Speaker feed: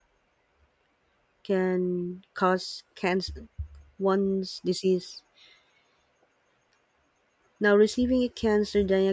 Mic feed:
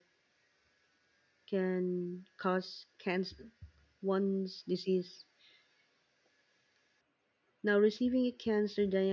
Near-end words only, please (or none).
none